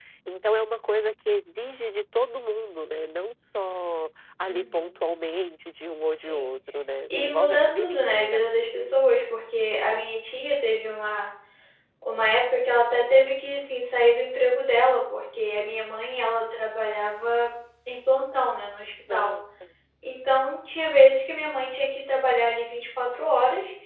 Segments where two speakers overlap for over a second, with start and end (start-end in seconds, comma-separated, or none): 7.1-8.4